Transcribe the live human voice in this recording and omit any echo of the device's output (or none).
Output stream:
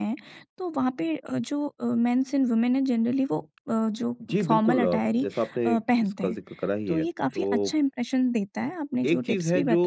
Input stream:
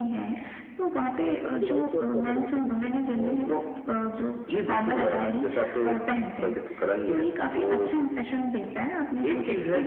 अ, मुझे व्हाइट शर्ट्स पहनना बहुत पसंद है और